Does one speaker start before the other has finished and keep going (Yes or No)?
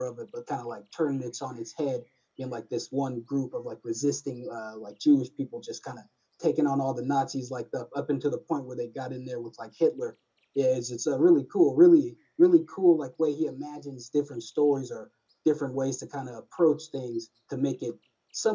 No